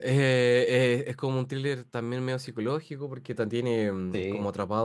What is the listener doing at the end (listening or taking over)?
listening